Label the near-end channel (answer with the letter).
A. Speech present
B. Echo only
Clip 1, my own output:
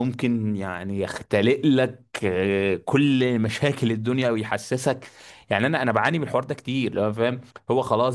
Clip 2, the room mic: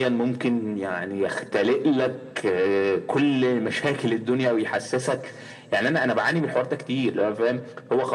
B